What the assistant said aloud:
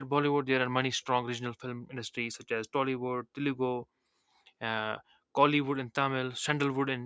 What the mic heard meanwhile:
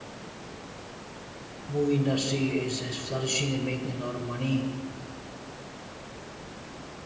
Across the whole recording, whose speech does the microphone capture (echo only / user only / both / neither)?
user only